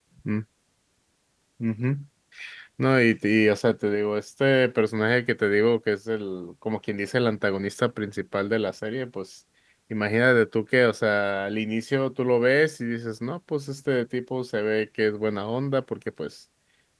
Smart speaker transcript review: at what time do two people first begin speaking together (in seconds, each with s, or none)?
none